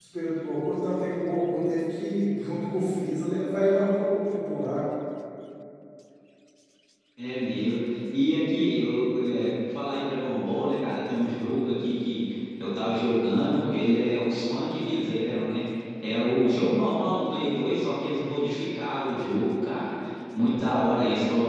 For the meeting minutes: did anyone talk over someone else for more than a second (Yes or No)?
No